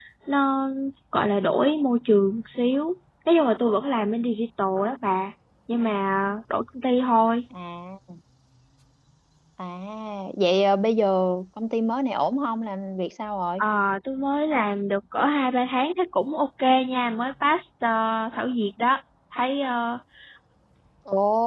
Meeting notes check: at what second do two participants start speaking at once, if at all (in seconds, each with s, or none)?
none